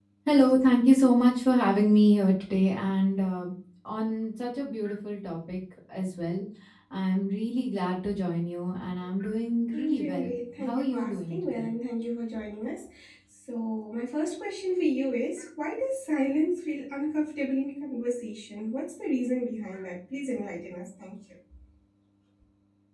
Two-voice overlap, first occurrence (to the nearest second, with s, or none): 10 s